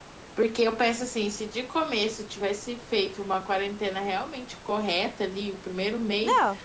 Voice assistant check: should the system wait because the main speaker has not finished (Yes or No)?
Yes